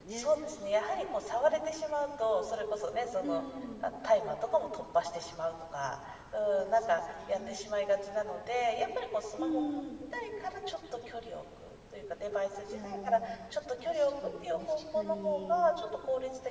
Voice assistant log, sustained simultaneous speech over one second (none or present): present